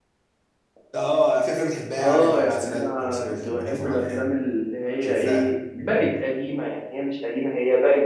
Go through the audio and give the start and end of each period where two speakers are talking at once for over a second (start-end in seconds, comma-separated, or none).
1.9-4.3